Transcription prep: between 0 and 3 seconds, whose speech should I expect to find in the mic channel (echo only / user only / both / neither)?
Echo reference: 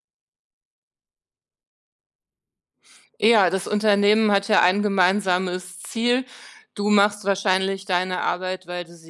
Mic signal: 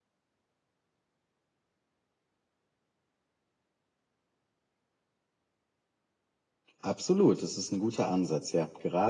neither